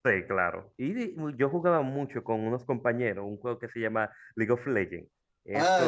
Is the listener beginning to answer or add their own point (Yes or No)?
Yes